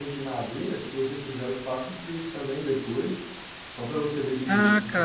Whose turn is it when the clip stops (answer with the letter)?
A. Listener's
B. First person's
A